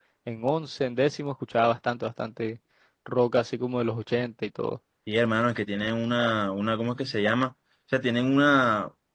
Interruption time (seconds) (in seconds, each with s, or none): none